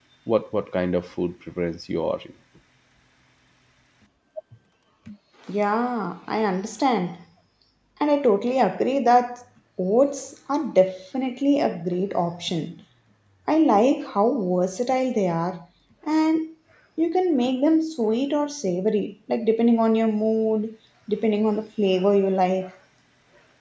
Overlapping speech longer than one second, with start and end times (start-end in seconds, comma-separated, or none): none